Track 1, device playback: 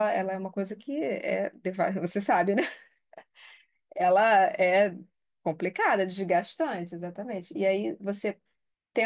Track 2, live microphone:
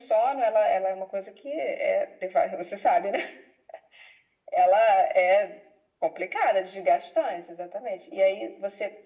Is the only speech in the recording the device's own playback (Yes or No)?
Yes